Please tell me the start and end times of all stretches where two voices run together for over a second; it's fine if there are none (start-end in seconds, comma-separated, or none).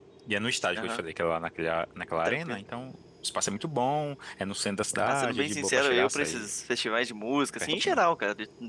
5.1-6.5